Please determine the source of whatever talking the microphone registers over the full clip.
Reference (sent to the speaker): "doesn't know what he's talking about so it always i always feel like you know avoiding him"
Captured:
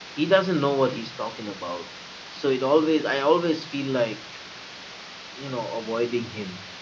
echo only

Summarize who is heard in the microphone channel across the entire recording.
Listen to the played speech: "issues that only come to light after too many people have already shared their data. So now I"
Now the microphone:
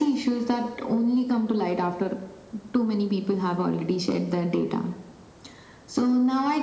echo only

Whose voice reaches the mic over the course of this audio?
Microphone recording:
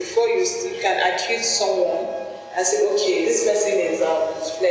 echo only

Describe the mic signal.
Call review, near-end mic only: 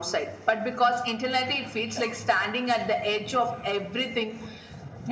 echo only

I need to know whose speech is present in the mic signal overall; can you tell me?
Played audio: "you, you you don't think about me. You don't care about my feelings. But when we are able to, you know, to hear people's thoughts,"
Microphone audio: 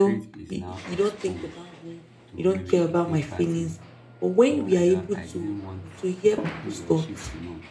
both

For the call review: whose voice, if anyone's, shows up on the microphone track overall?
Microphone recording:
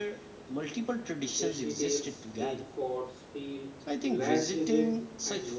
both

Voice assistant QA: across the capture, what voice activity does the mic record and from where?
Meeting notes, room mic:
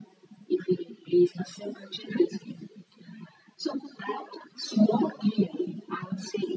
echo only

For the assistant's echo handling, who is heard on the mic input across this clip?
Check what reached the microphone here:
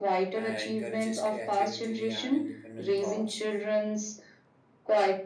both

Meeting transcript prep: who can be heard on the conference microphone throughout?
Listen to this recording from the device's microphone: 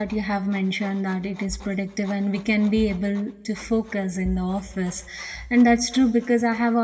user only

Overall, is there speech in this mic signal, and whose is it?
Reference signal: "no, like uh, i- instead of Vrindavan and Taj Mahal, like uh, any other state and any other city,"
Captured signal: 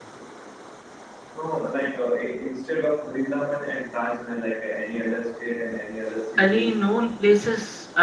both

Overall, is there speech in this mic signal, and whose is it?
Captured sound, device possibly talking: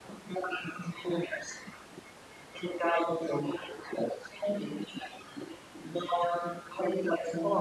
echo only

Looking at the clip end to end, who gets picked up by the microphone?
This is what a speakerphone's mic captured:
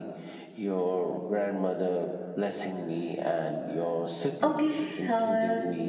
both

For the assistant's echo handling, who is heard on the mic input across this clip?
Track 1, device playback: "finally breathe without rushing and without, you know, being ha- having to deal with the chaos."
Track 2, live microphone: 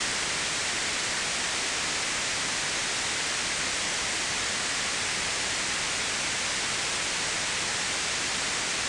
neither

